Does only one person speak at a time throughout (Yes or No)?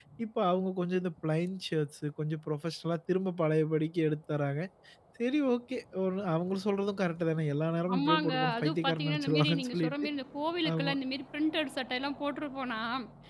No